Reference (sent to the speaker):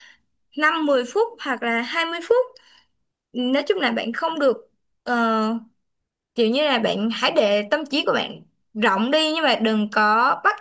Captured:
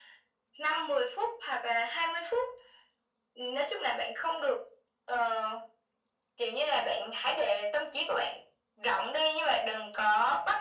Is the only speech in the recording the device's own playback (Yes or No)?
Yes